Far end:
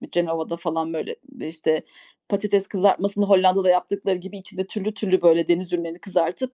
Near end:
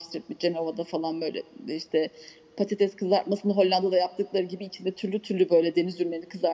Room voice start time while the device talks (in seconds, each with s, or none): none